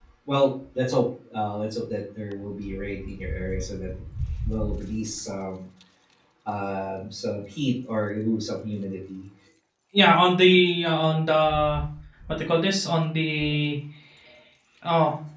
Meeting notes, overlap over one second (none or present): none